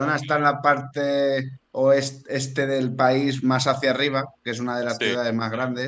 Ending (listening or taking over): listening